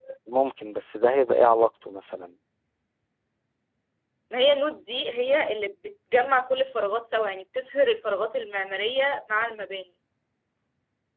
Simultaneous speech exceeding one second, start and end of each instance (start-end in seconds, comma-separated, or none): none